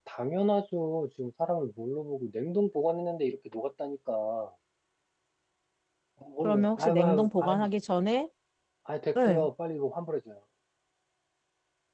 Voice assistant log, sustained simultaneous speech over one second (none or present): present